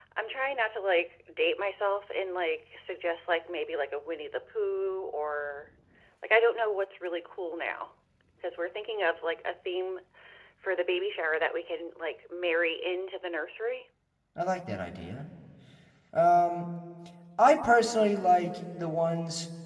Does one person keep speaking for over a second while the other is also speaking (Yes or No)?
No